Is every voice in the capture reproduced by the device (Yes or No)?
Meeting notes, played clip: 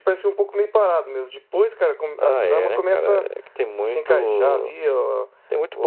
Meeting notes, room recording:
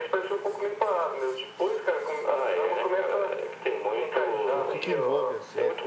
No